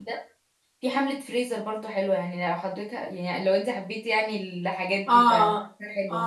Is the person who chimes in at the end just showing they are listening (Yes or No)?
No